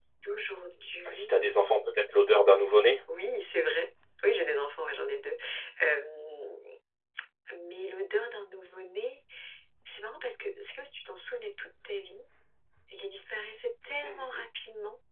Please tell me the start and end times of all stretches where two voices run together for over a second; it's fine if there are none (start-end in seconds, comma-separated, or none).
none